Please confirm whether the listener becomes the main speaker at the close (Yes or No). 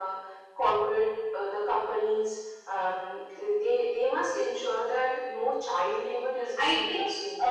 Yes